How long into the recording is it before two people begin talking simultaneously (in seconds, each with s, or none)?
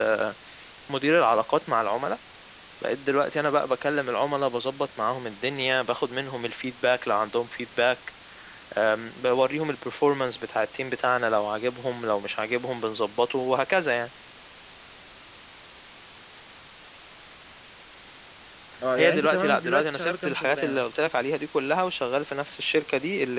18.9 s